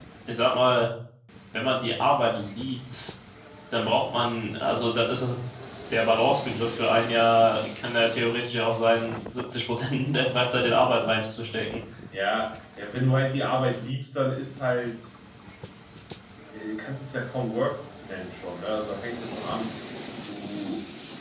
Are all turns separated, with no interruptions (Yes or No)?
Yes